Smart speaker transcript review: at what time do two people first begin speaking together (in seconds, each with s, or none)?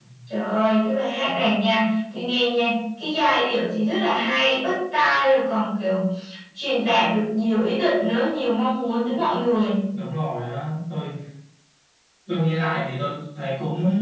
none